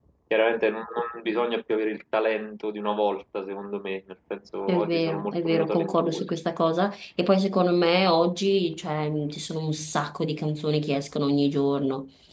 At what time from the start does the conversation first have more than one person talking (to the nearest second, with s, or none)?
5 s